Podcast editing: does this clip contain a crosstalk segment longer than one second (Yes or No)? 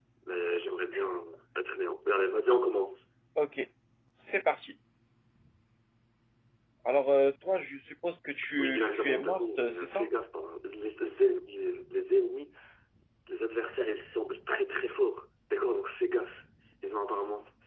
Yes